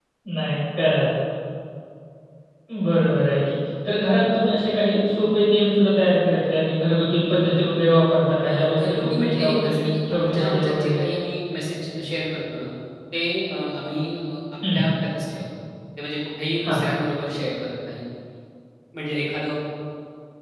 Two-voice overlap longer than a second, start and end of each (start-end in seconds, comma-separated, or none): 8.4-11.0